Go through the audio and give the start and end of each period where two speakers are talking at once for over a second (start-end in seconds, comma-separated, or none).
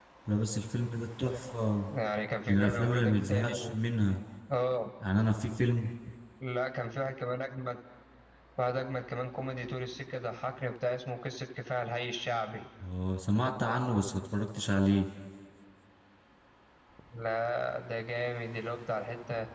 2.5-3.7